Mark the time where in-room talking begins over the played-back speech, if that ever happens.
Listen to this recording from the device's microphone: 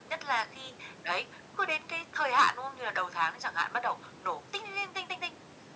none

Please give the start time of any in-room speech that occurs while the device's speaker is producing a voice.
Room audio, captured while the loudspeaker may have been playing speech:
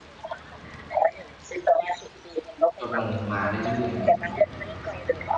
3 s

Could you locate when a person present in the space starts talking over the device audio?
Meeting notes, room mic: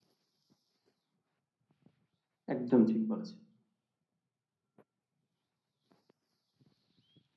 3 s

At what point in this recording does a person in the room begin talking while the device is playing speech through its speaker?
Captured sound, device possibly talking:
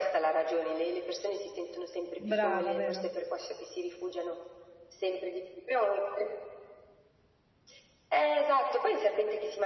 2 s

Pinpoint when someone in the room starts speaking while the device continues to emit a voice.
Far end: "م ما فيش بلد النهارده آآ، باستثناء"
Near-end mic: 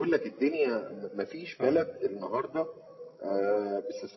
2 s

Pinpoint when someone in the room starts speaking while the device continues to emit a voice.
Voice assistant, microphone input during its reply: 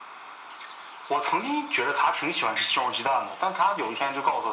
none

